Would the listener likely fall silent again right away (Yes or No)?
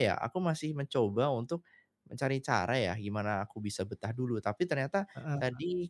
Yes